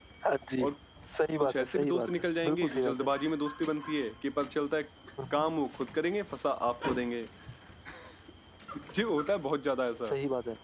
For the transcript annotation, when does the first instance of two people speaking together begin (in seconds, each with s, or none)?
1.4 s